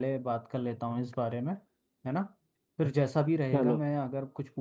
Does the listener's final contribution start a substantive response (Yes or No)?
No